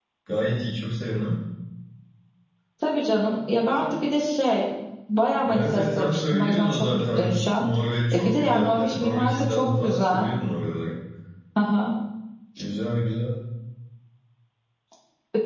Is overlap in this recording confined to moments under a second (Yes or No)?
No